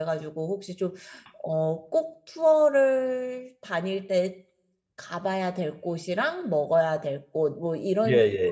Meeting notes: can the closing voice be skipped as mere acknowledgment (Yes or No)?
Yes